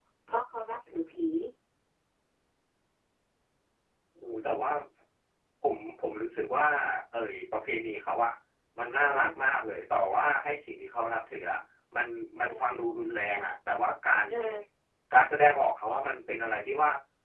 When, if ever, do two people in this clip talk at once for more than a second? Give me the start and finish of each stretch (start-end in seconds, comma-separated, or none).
none